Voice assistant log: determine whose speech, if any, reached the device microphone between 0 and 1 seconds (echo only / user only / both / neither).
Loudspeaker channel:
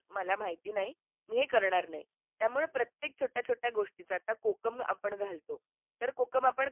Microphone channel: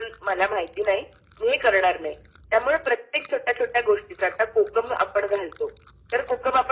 echo only